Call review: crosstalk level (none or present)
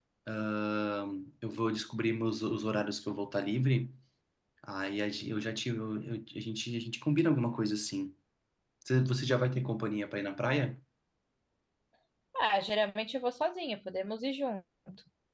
none